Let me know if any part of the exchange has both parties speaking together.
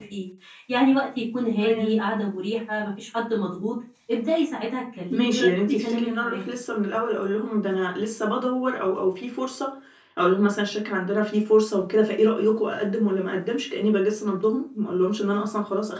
Yes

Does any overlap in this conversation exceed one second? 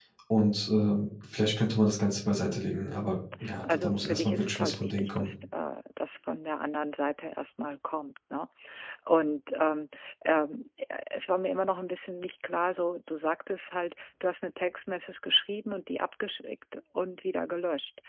Yes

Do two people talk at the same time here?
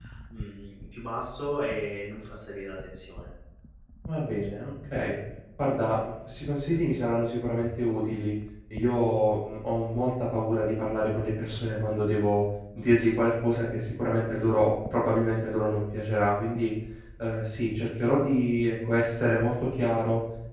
No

